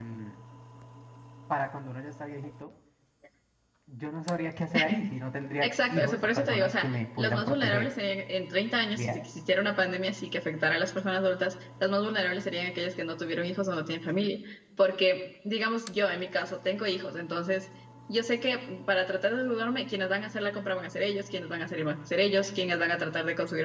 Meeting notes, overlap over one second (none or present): present